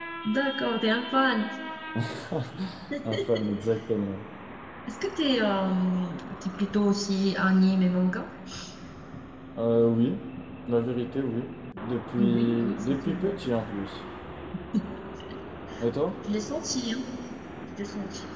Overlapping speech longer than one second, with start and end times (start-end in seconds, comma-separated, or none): 12.2-13.4